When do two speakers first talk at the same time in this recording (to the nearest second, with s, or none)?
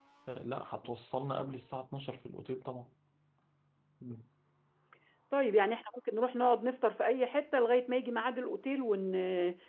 none